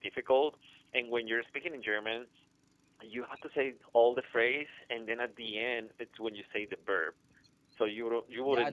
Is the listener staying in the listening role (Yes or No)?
No